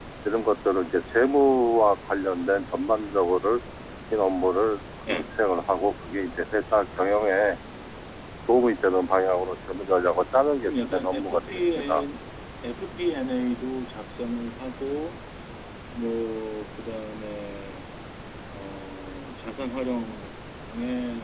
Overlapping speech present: Yes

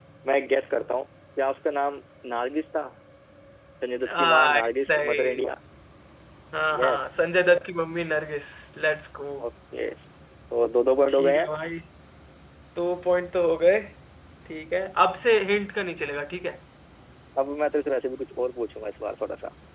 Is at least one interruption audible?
Yes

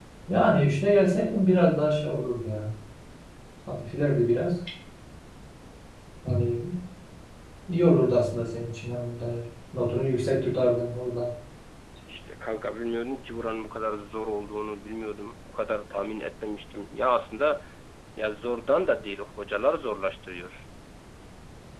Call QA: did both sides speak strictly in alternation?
Yes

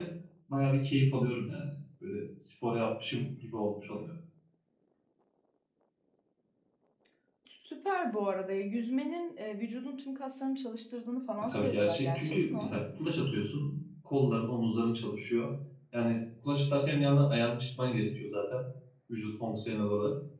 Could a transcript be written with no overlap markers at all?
No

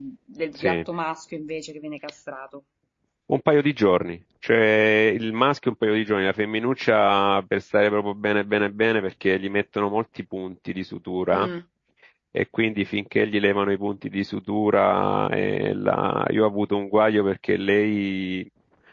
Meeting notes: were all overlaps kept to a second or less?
Yes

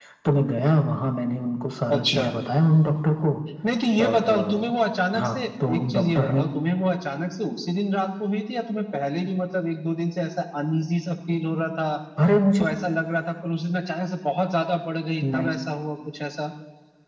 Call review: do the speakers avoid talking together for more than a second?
No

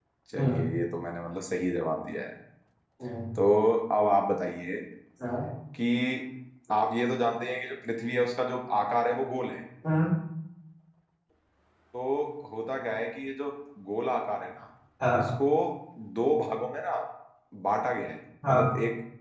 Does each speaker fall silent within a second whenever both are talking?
Yes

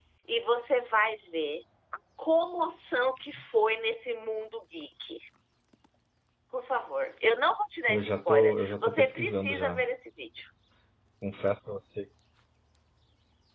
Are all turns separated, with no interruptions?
No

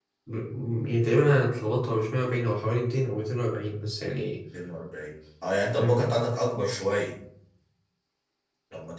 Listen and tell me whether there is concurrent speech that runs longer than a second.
No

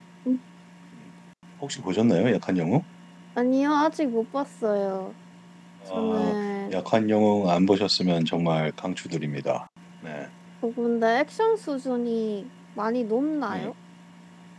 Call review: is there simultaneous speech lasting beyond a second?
No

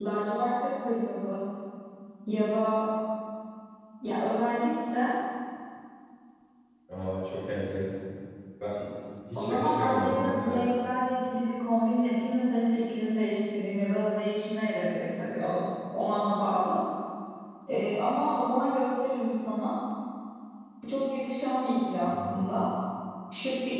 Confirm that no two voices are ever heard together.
No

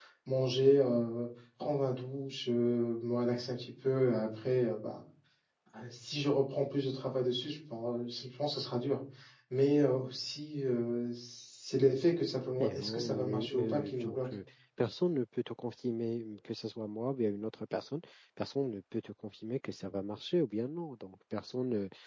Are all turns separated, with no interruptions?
No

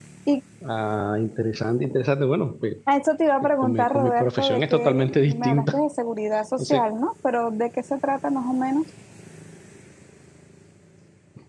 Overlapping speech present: Yes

